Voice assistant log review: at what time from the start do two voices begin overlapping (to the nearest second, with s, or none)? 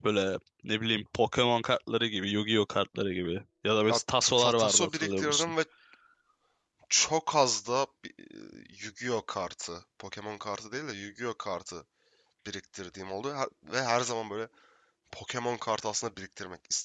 4 s